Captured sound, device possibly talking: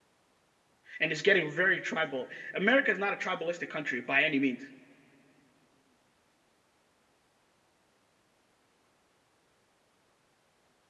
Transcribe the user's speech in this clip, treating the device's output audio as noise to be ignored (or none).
and it's getting very tribal America is not a tribalistic country by any means